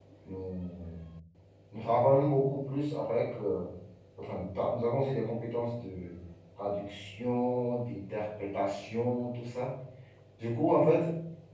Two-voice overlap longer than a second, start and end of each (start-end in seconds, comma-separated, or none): none